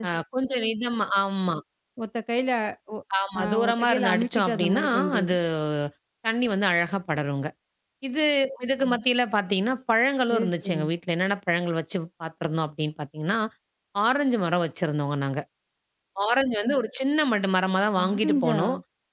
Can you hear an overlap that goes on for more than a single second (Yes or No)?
Yes